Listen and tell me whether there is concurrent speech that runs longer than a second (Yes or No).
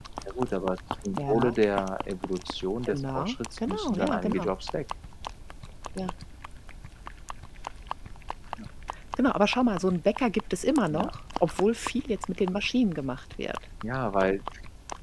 Yes